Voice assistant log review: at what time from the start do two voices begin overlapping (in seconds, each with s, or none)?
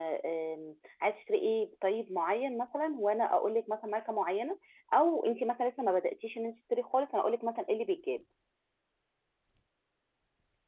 none